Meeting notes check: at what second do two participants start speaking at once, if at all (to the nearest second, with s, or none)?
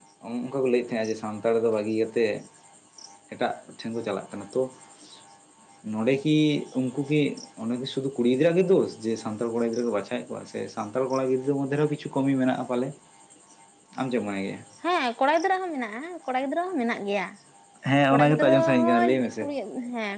18 s